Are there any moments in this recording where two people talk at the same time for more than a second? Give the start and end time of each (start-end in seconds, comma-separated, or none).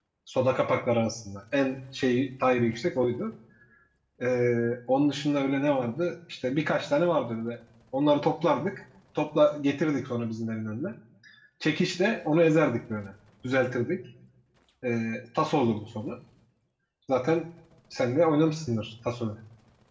none